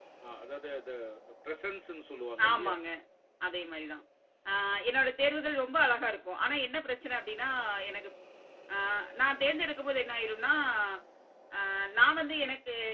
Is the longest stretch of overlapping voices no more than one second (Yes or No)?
Yes